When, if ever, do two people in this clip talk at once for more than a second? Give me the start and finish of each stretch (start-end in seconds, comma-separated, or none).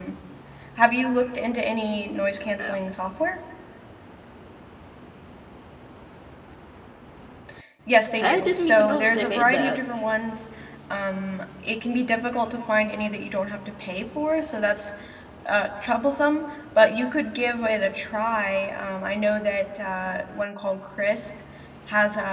8.2-9.8